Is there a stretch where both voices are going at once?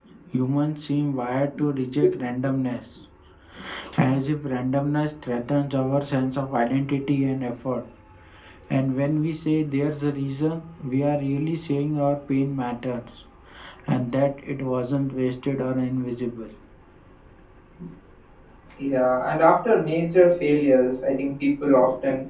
No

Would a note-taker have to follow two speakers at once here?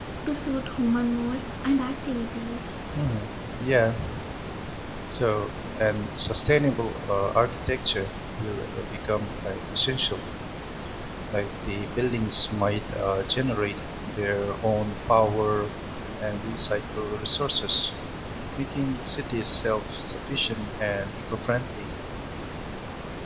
No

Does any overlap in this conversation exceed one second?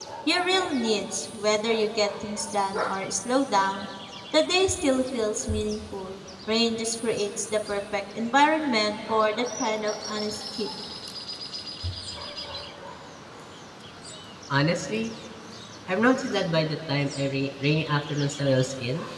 No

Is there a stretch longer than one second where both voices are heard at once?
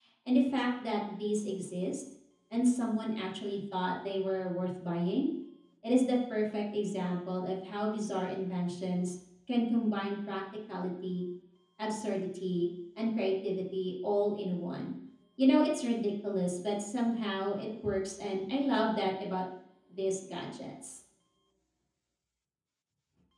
No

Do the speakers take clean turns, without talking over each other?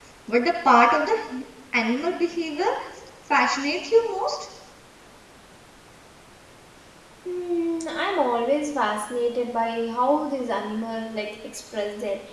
Yes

